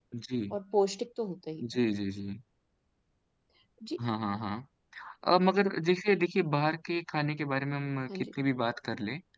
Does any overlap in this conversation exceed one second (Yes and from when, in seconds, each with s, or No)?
No